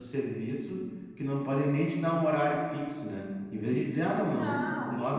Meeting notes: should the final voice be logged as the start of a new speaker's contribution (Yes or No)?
No